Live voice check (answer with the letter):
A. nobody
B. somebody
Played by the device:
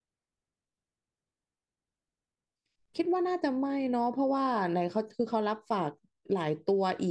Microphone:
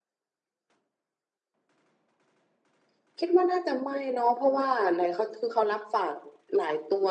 A